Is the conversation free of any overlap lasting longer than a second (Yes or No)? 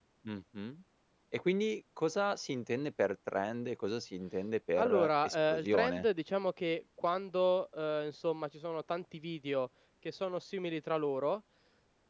No